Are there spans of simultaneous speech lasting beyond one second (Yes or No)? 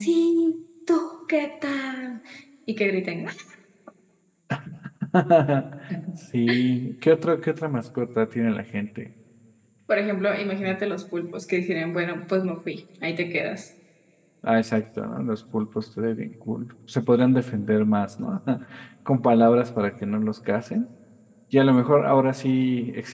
No